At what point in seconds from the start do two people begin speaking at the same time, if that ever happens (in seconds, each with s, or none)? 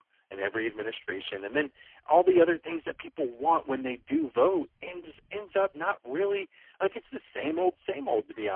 none